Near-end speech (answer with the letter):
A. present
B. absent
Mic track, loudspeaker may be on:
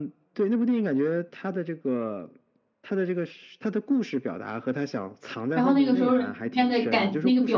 A